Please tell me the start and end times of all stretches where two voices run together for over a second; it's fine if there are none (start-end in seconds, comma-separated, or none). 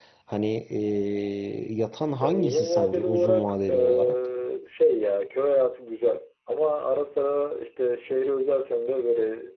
2.2-4.2